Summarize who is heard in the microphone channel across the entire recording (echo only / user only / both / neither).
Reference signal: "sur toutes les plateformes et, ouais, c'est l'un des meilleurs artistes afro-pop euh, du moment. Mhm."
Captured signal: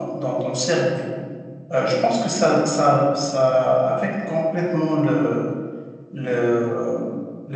user only